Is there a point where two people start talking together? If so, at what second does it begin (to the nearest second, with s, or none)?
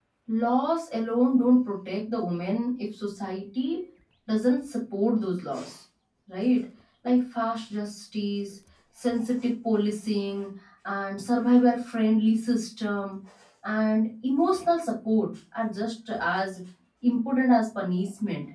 none